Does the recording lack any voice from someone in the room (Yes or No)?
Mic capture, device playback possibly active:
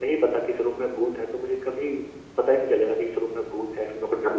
Yes